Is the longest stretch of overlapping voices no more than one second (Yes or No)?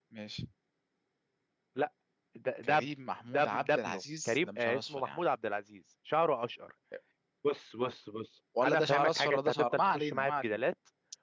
No